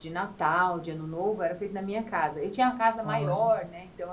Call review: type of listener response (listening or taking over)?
listening